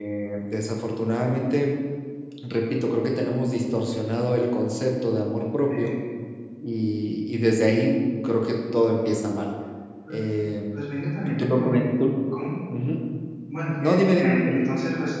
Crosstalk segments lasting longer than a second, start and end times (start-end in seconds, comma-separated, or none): none